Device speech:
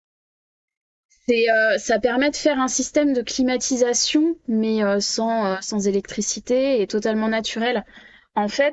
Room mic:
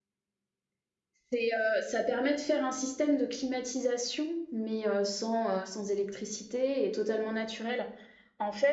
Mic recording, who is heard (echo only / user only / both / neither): echo only